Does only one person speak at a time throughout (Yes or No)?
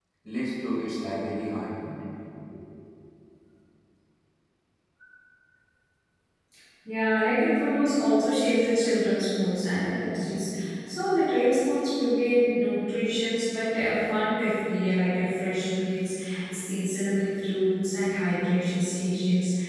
Yes